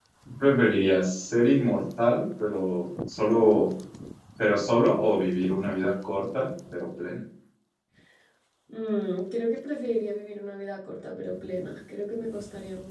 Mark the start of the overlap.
none

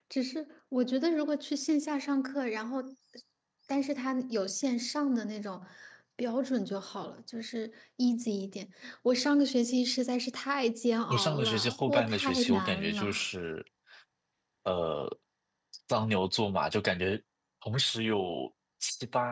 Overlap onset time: 11 s

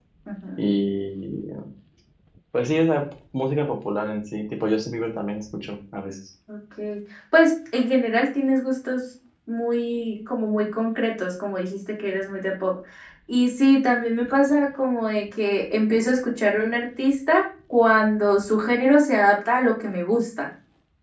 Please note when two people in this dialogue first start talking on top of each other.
none

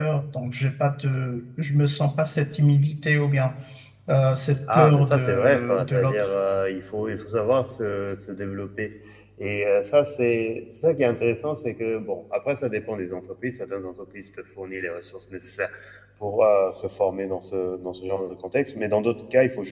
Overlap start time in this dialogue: 5 s

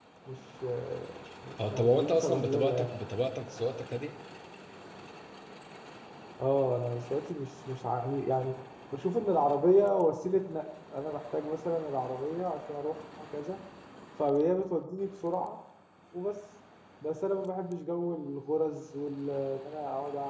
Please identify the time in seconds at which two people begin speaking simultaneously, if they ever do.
2 s

